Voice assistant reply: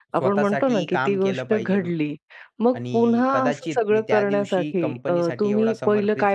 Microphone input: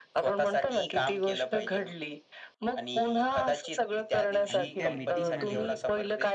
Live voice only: आणि त्या मीटिंगमध्ये

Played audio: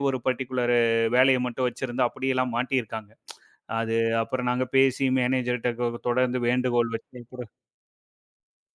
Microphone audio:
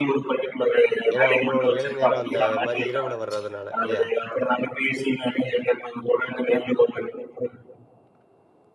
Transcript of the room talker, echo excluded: ஏன்னா உங்களோட வேலை நேரம் அந்த மாரி இரவுல வர்றதுனால இல்லையா?

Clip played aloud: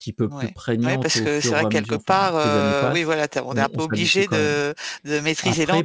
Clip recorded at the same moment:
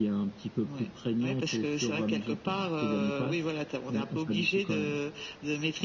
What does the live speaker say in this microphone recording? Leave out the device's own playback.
none

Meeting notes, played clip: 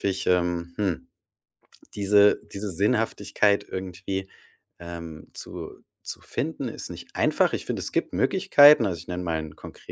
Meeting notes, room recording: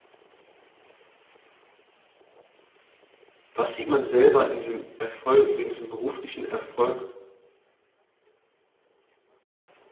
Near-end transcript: Was sieht man selber in diesem Erfolg in diesem beruflichen Erfolg

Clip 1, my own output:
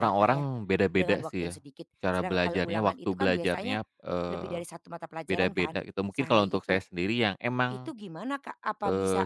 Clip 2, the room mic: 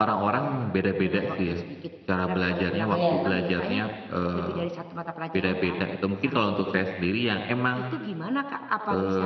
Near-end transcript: iya.

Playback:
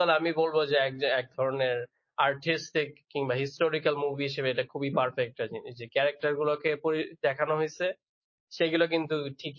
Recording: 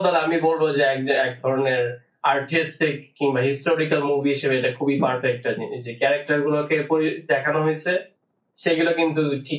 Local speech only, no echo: none

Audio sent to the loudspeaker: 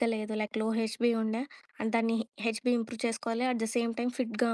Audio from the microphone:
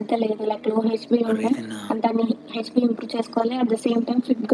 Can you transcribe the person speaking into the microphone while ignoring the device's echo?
ఆర్ ఏదైనా

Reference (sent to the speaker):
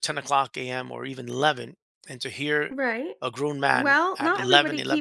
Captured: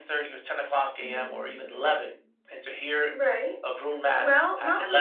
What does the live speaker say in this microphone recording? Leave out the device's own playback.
mhm,

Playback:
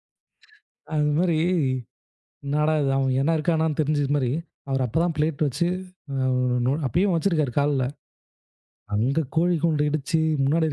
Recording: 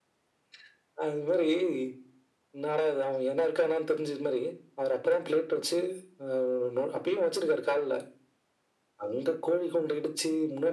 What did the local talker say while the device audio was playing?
none

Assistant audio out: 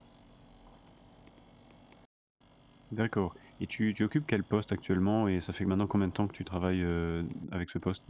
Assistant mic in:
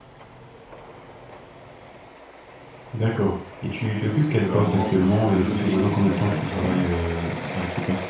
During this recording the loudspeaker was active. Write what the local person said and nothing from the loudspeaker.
c'est qu'à un moment je me suis levé contre ma direction

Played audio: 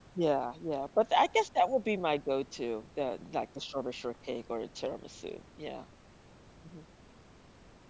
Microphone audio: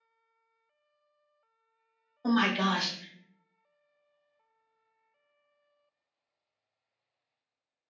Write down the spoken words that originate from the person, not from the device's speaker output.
Oh my gosh.

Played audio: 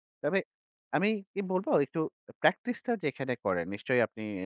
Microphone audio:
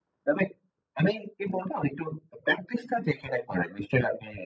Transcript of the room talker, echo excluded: none

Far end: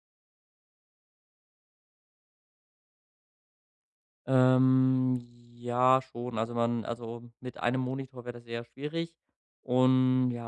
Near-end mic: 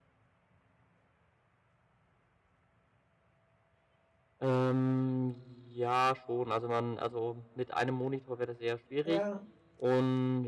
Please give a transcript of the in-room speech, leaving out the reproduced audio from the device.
Ja,

